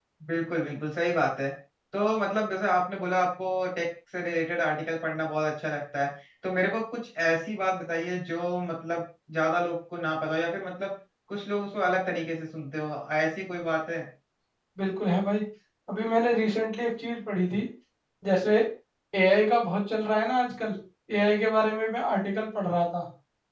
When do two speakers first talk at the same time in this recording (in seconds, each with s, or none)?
none